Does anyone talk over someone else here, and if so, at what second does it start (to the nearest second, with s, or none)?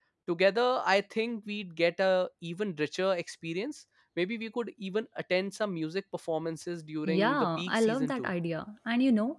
7 s